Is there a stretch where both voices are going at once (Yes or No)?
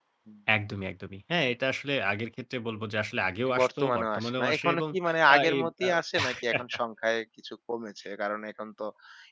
Yes